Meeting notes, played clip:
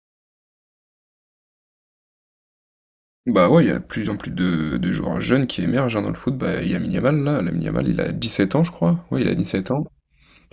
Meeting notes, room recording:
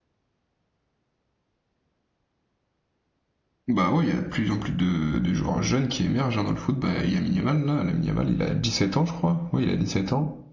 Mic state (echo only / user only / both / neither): echo only